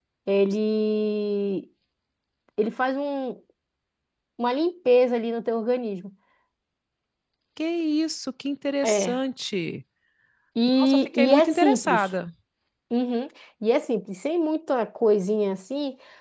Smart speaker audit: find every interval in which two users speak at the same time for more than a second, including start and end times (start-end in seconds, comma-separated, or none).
10.8-12.1